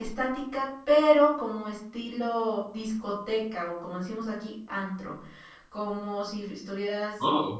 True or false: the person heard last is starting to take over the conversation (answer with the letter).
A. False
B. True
B